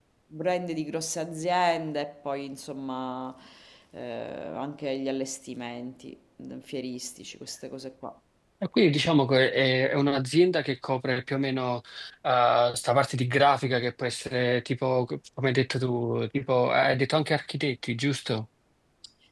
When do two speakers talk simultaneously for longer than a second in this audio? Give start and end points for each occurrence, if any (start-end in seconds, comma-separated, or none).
none